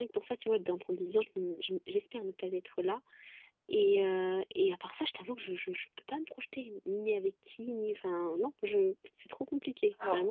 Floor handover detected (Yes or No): Yes